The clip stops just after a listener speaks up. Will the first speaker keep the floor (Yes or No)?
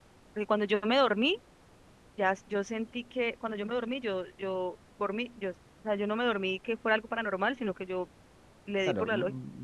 No